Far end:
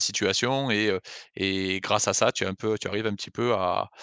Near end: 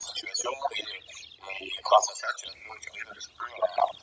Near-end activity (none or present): none